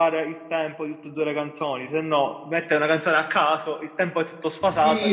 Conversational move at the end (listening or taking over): taking over